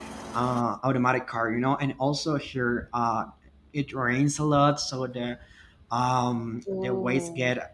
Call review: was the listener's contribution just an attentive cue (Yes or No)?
Yes